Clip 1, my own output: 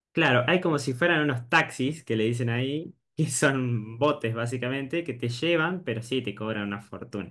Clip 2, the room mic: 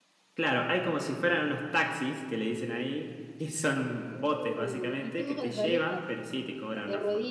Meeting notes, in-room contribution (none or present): present